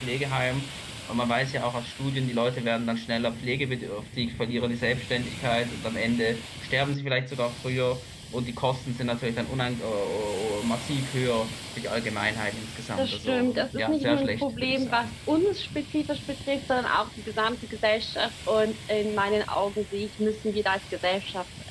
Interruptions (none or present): present